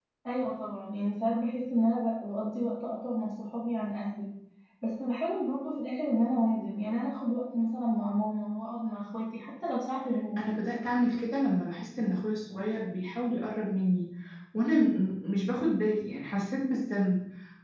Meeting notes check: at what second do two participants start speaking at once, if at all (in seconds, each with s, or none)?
none